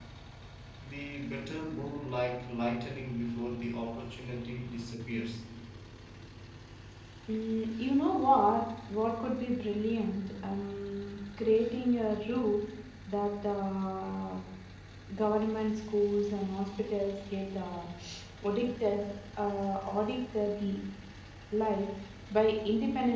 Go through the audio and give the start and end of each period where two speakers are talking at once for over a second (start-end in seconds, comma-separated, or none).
none